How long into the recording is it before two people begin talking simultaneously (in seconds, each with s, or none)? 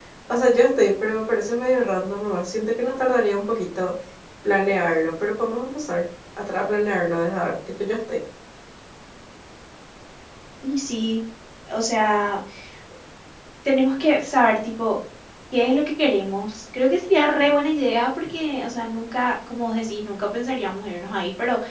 none